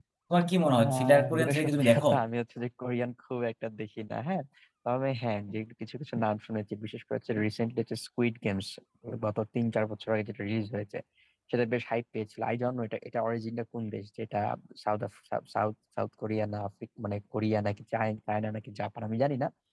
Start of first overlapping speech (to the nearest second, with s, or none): 1 s